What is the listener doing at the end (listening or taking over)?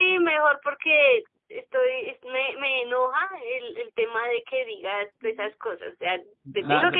taking over